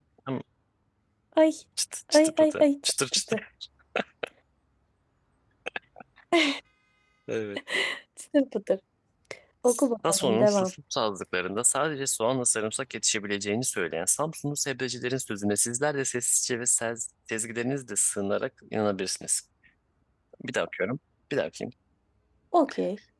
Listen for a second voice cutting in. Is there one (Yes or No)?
Yes